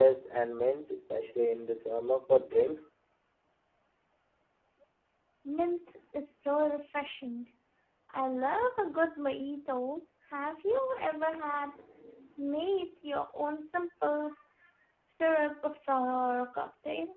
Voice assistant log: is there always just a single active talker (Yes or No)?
Yes